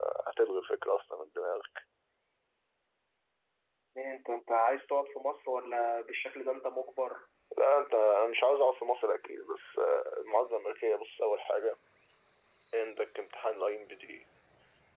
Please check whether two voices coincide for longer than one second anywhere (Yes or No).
No